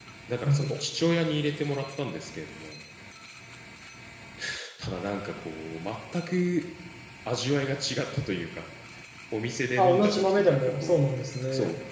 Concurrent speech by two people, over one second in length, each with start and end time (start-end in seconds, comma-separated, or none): 9.8-11.1